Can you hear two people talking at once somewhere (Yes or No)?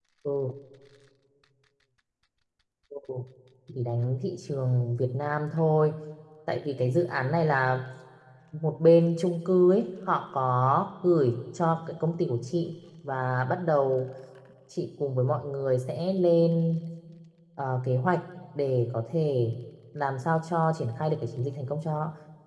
No